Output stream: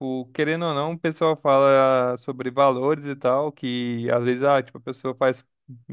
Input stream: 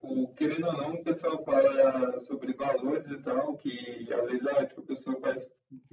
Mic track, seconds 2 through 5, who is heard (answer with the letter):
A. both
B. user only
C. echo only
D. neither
C